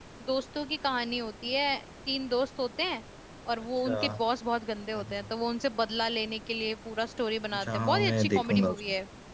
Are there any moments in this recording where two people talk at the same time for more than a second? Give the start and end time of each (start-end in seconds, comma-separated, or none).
7.5-8.8